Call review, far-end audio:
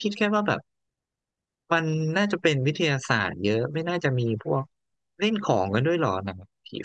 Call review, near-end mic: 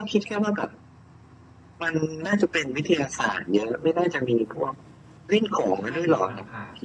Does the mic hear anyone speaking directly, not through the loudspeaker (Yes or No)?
Yes